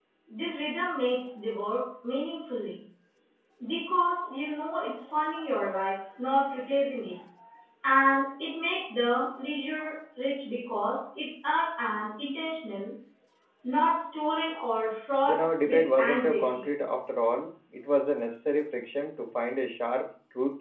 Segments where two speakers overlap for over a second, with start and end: 15.2-16.7

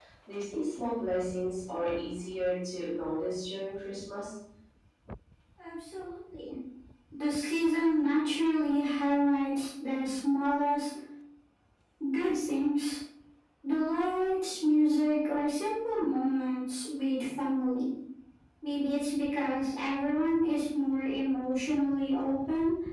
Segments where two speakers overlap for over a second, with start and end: none

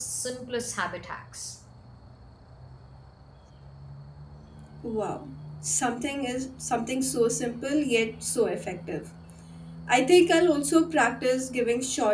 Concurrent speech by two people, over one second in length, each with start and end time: none

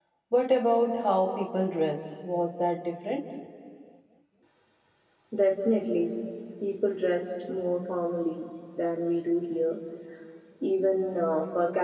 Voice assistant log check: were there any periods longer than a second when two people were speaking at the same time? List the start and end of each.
none

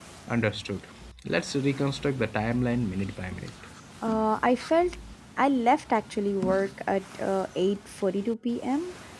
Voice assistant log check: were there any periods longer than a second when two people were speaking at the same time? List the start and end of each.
none

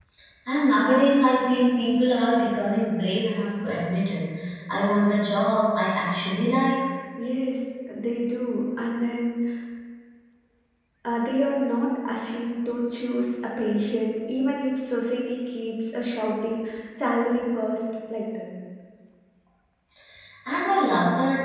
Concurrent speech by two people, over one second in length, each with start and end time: none

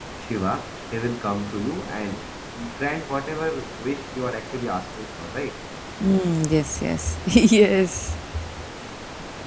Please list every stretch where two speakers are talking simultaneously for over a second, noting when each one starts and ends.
none

